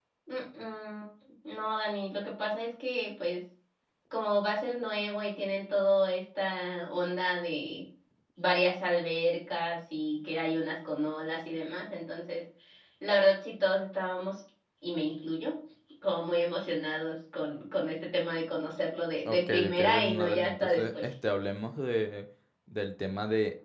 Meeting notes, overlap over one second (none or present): present